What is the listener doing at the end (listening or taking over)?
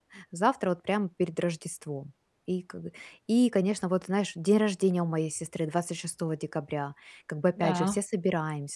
listening